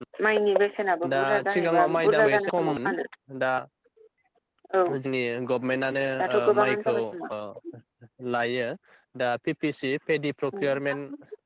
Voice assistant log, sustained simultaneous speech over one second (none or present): present